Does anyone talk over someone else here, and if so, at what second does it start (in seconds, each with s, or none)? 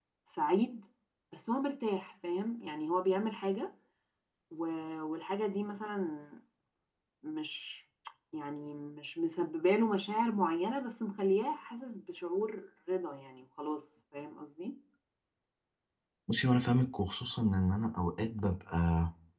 none